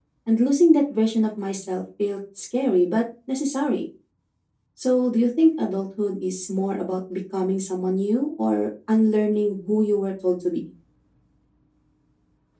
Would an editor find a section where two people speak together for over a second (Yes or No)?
No